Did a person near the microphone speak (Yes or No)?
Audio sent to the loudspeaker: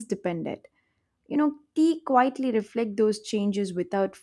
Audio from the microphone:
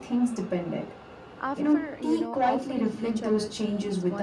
Yes